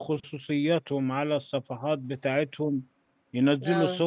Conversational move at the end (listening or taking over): listening